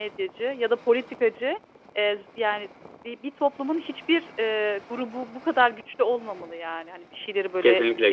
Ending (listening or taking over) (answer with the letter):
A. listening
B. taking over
B